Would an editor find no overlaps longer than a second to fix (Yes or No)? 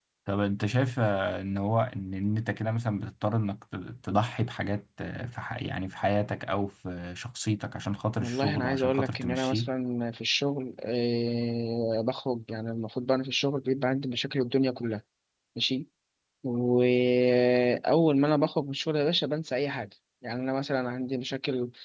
No